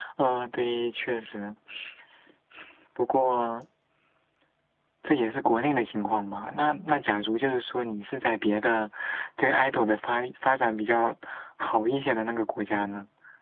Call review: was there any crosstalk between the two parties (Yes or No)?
No